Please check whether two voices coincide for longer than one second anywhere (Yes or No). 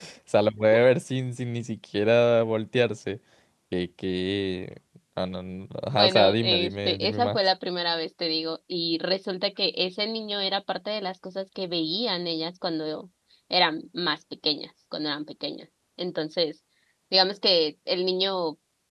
Yes